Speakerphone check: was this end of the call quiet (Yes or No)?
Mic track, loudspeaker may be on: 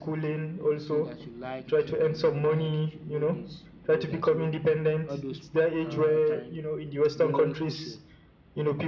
No